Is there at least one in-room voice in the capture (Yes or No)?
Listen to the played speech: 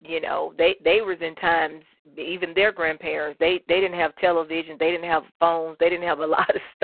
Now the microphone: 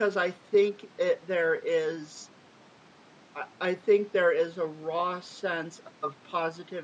Yes